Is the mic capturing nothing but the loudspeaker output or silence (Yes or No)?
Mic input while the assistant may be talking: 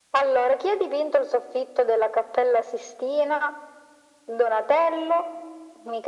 Yes